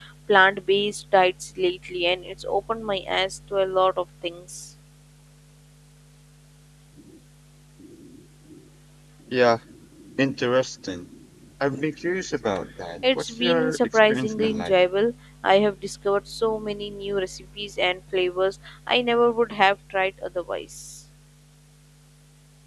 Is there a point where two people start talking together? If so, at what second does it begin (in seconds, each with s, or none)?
13.0 s